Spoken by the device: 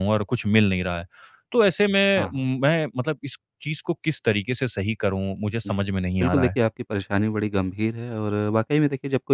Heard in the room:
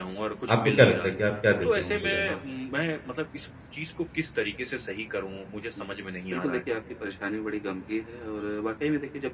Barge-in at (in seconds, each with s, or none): 0.5 s